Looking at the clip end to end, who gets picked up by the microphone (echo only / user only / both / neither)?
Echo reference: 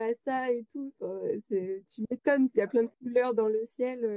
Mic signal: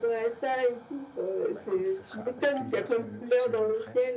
both